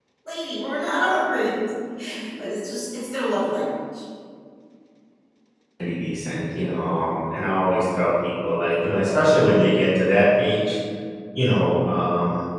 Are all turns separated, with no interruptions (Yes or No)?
Yes